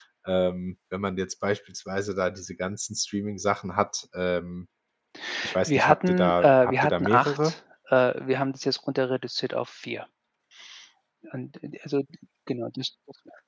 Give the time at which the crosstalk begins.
5.6 s

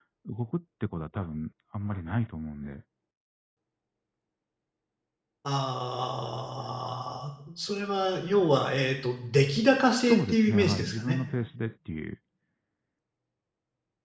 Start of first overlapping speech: 9.6 s

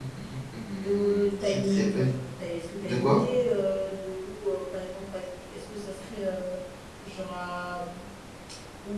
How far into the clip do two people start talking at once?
0.8 s

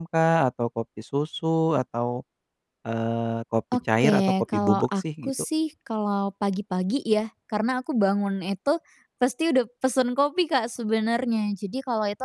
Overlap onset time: 4.0 s

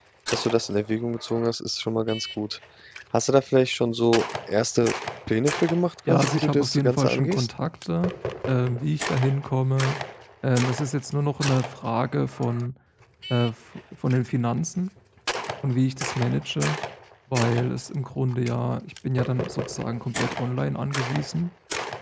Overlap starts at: 6.1 s

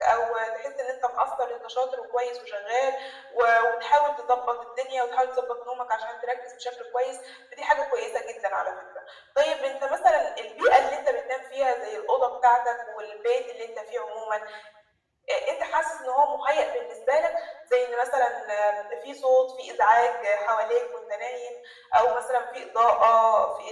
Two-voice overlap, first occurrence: none

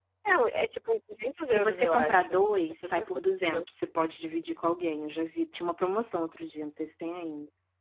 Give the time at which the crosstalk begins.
1.4 s

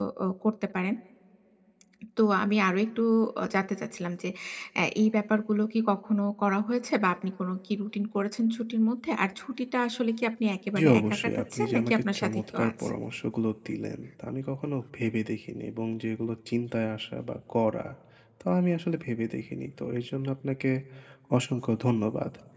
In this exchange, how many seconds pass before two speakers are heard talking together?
10.8 s

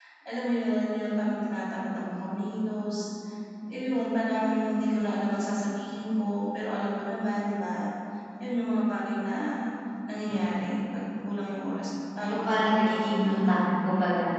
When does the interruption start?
12.3 s

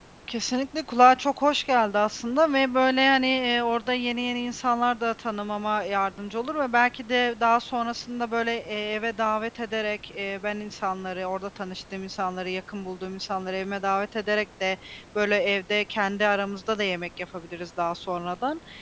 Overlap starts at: none

